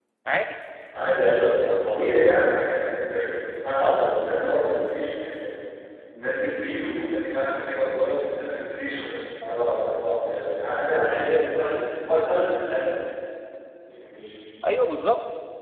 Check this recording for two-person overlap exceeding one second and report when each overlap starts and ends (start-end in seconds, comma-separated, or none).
none